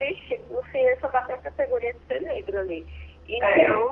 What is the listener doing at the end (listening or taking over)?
listening